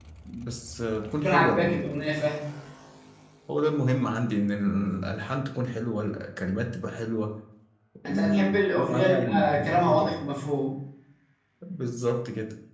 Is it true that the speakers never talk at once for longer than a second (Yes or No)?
No